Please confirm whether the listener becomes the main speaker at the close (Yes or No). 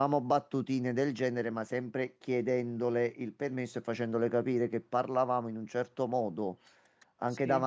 No